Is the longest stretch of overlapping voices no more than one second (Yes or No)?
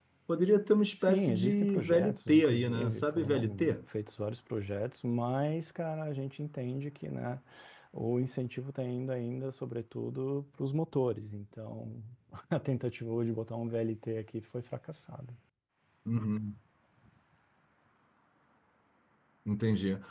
No